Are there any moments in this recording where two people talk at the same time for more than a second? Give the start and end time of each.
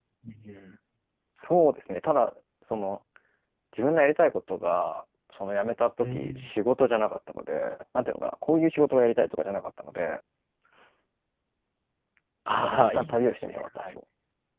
12.6-13.9

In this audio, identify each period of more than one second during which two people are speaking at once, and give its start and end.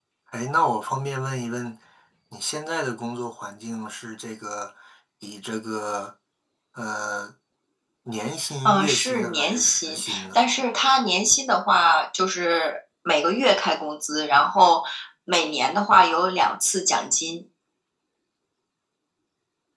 8.6-10.4

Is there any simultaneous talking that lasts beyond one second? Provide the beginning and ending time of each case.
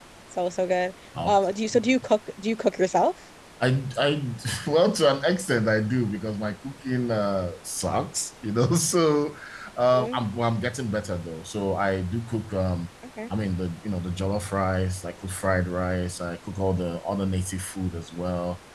none

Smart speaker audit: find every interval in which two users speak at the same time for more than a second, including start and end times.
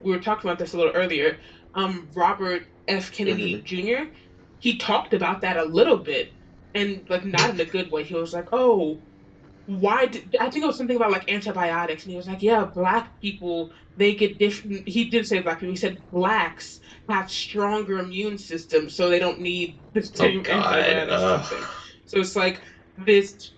20.2-21.4

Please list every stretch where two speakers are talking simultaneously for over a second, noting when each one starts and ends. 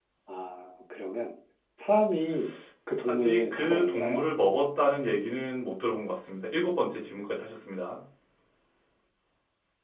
3.0-4.2

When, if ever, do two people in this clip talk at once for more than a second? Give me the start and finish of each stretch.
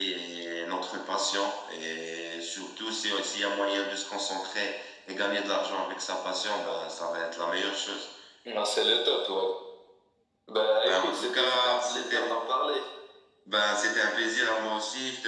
10.8-12.3

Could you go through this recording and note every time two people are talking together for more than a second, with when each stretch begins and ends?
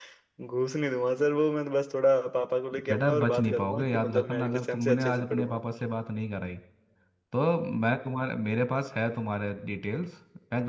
2.9-5.6

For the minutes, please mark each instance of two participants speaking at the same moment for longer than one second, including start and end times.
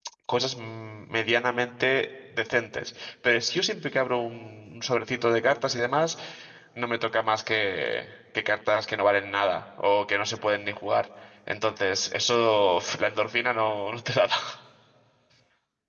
none

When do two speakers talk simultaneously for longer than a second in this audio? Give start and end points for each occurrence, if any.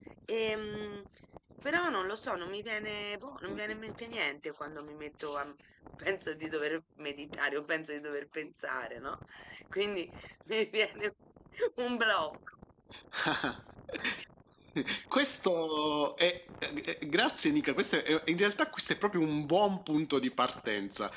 none

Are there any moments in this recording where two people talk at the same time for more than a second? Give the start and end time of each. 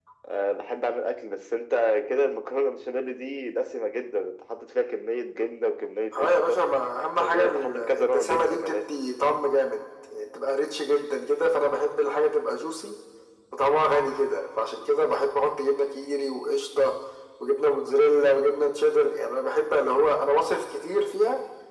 7.2-8.8

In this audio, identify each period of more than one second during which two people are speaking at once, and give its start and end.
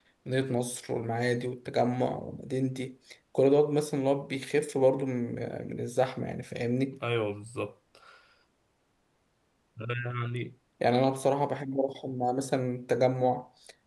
none

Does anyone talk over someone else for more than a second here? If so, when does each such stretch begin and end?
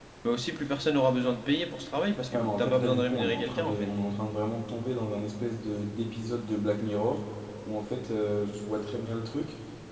2.3-3.9

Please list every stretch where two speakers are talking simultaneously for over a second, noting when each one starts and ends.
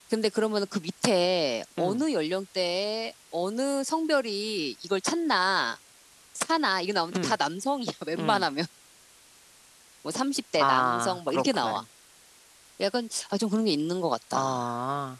10.6-11.8

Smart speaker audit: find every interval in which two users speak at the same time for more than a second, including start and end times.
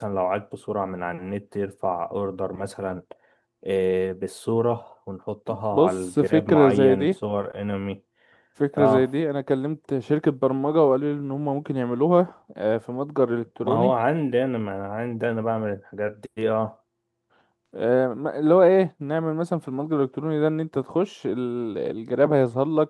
5.7-7.1

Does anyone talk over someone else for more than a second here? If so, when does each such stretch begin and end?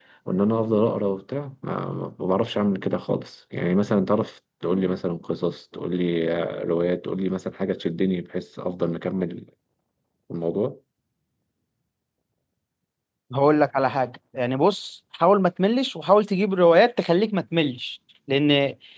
none

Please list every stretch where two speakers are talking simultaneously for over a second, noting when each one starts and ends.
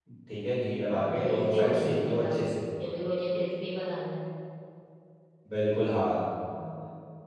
0.9-2.5

